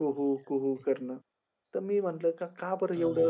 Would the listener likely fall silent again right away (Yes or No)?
Yes